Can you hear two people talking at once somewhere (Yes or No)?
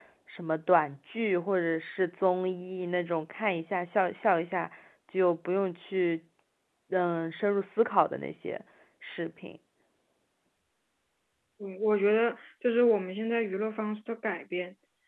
No